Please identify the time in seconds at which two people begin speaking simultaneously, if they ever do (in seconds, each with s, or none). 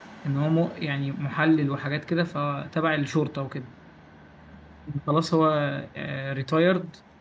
none